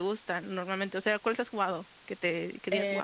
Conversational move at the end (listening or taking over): taking over